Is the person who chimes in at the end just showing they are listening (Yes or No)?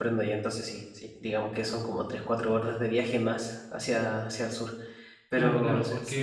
No